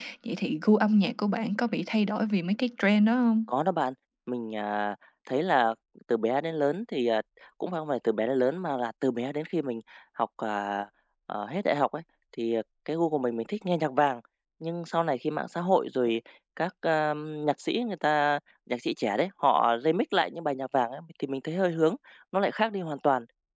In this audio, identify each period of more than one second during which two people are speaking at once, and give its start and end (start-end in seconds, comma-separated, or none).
none